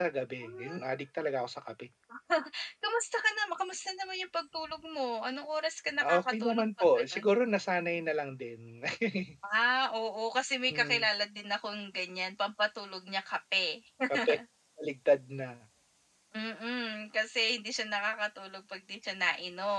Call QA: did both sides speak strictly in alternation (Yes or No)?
No